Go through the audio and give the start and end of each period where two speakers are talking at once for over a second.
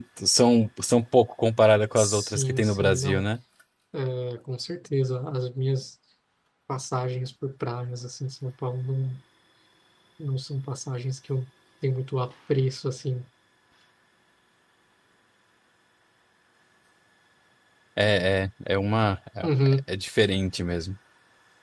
2.0-3.2

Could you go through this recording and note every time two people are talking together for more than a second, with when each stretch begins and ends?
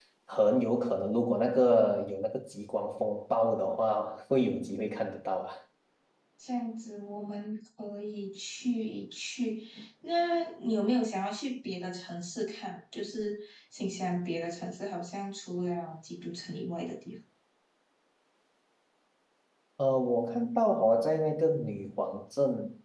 none

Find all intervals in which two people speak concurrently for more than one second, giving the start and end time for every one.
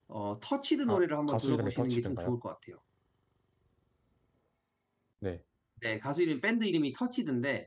0.9-2.3

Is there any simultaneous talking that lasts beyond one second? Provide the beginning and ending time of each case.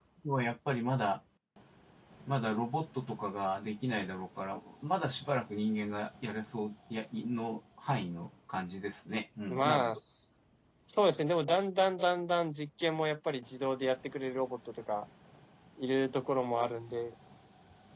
none

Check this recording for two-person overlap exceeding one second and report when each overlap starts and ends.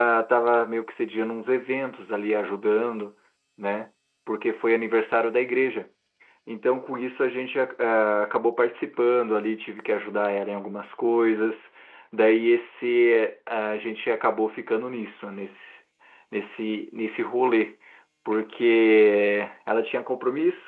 none

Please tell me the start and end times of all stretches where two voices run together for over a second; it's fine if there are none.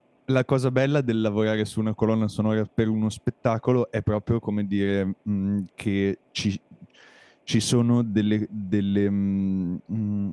none

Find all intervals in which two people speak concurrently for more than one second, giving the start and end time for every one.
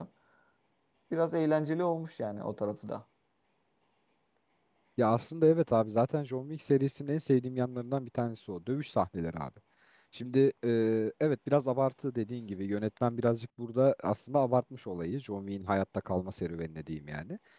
none

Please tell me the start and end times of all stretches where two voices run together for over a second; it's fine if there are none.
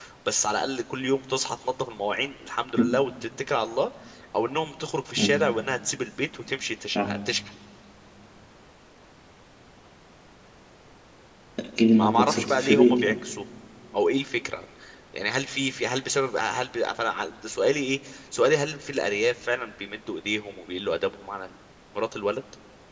11.9-13.2

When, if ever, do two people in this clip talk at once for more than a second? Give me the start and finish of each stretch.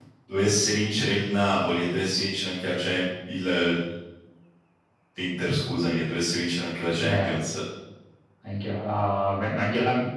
none

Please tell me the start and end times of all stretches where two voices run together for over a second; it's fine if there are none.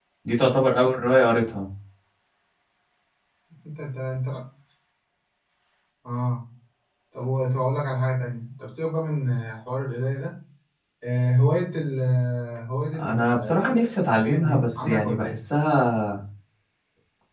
13.0-15.4

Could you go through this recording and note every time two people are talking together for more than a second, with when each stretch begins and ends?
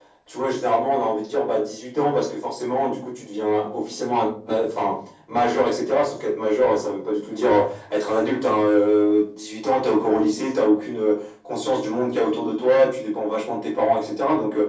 none

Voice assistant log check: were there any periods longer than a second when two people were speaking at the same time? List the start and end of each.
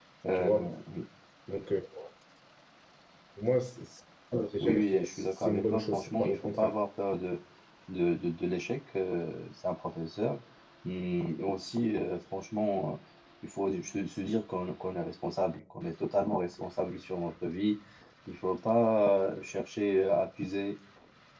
4.6-6.7

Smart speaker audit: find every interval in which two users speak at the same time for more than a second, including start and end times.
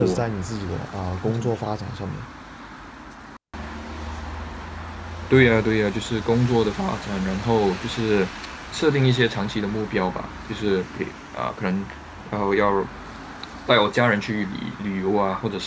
none

